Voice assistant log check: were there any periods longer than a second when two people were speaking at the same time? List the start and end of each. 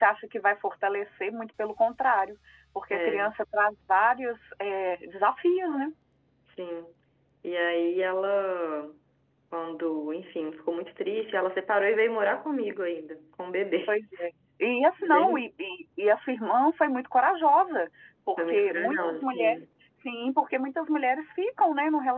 18.4-19.6

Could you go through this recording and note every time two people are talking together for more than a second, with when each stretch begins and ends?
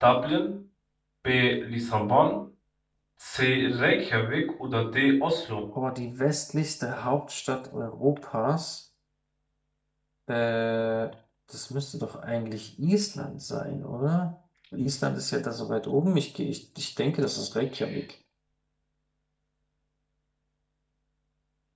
none

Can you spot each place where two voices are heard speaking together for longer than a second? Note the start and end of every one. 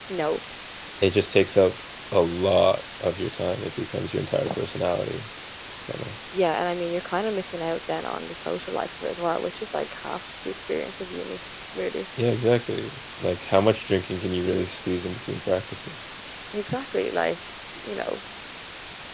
none

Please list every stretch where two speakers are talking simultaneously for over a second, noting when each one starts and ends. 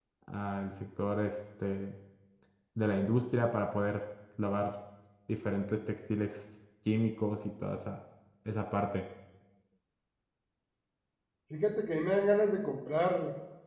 none

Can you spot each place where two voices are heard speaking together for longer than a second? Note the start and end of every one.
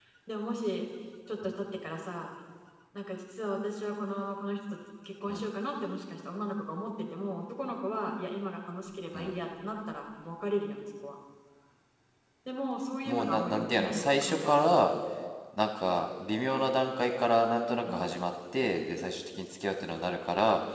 13.1-14.8

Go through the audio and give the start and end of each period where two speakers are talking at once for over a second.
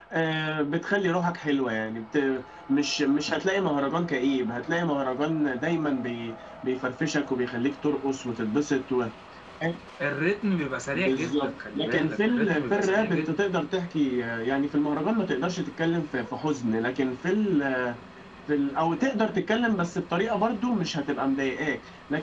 10.9-13.4

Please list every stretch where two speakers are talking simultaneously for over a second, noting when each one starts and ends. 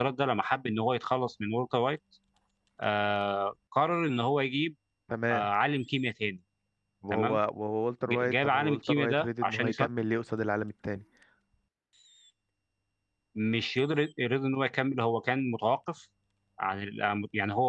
8.1-9.9

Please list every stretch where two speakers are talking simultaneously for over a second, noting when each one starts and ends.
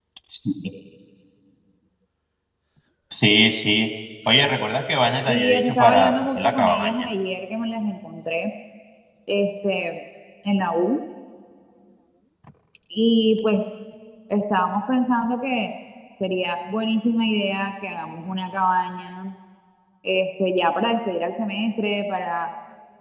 5.3-6.9

